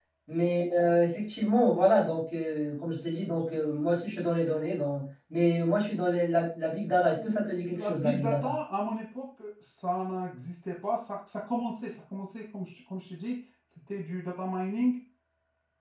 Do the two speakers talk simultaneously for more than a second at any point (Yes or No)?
Yes